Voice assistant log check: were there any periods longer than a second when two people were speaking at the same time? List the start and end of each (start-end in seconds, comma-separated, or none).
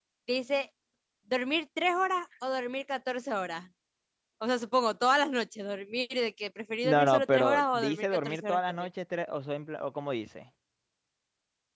6.8-8.9